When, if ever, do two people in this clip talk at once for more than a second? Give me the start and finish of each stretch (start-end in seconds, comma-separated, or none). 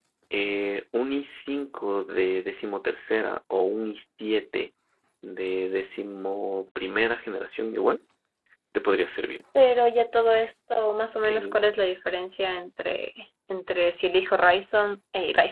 none